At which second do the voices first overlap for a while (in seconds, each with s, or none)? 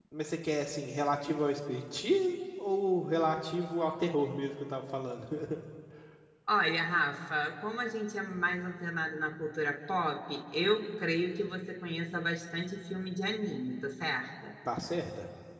none